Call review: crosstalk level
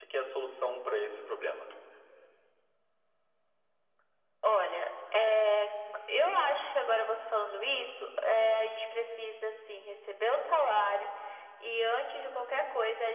none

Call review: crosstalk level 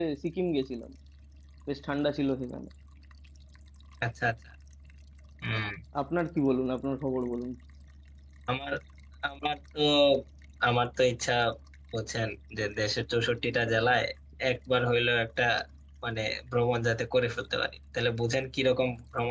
none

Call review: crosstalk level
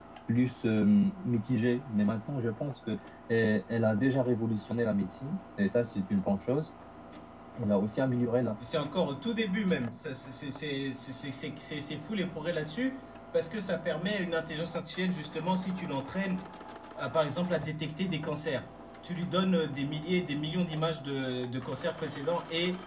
none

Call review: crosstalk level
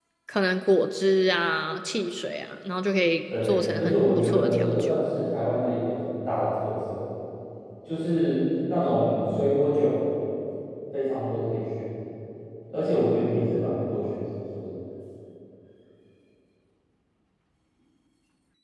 present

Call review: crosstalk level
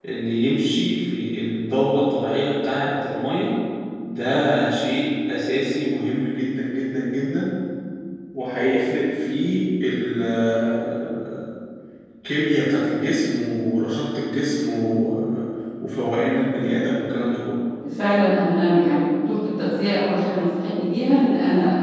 none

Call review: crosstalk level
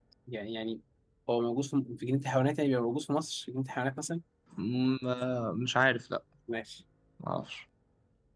none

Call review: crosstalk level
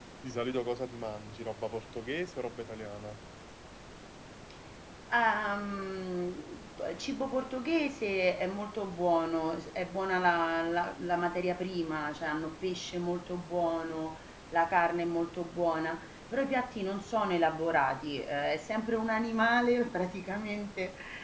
none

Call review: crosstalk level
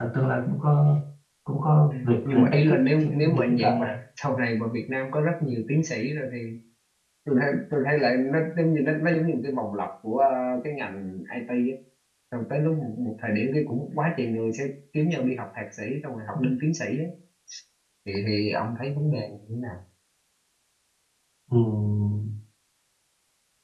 present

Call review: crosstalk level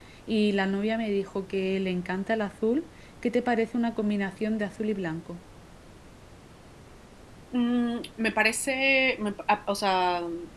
none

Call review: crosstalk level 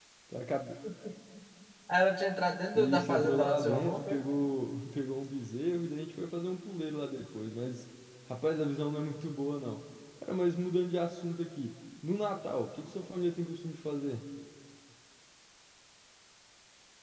present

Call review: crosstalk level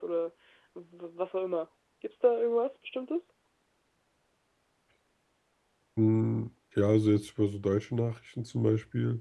none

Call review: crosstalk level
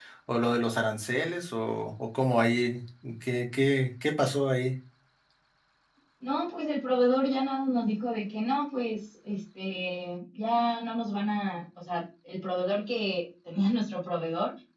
none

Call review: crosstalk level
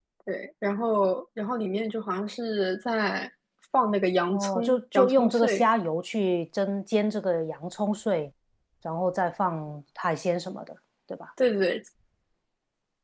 present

